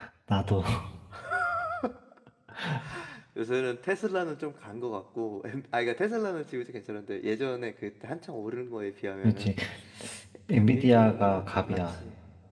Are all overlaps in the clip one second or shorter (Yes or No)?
No